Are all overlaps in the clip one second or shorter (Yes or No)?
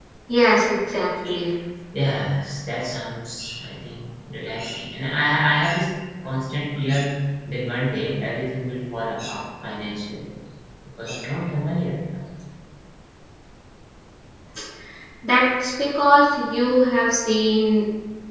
Yes